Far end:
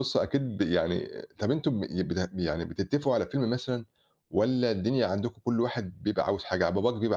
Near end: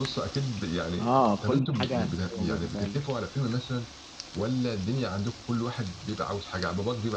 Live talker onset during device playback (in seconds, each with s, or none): 1.0 s